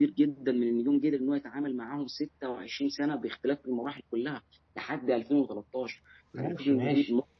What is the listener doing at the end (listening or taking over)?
taking over